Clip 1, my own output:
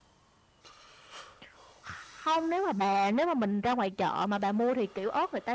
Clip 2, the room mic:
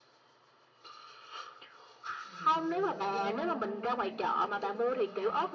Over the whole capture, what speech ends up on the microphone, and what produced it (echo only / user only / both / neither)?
both